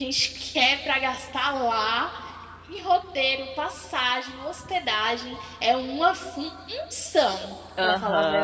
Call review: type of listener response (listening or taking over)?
taking over